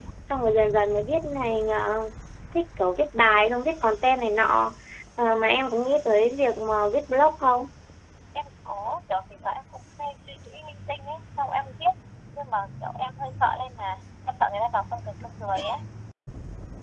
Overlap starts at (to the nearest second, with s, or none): none